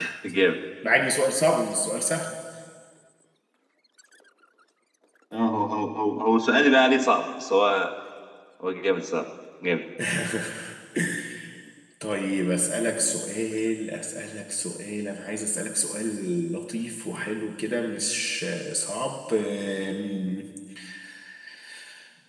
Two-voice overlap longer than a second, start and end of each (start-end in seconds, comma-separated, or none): none